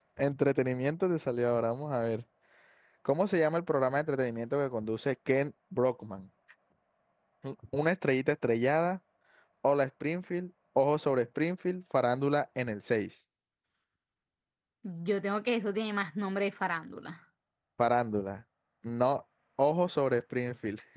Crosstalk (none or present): none